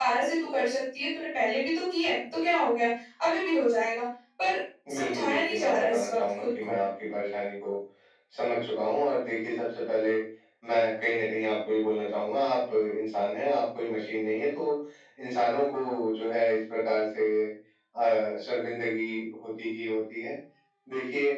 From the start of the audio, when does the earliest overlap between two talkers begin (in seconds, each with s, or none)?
5.0 s